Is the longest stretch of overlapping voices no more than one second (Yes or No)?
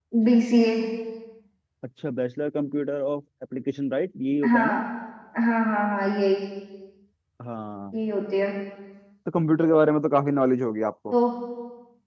Yes